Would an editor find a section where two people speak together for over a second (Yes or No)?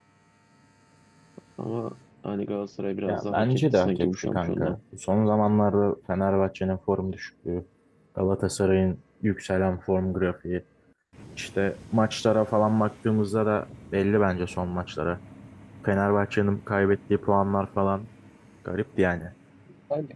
Yes